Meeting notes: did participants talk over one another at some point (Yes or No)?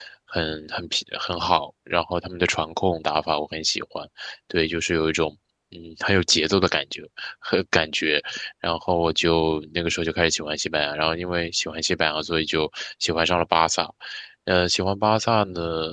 No